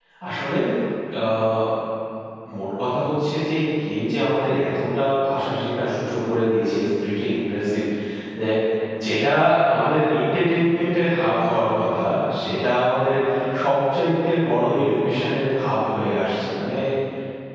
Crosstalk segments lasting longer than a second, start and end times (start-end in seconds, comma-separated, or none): none